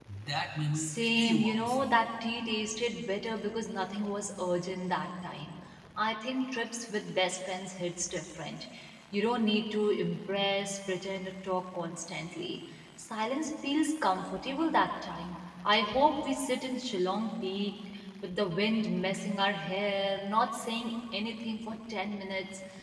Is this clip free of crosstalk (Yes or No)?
No